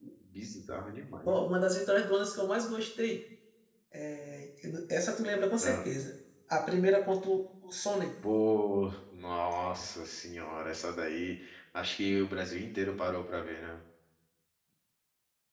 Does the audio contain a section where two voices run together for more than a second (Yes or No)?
No